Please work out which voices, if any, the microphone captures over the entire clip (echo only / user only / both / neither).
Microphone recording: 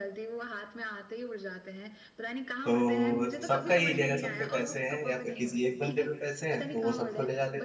both